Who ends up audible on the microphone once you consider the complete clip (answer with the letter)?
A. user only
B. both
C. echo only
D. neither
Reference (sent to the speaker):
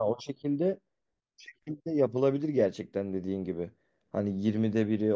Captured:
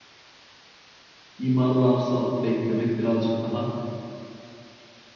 A